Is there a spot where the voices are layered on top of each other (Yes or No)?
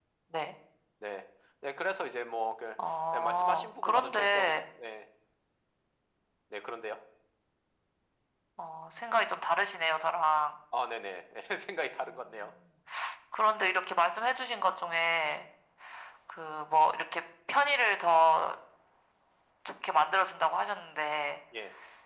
Yes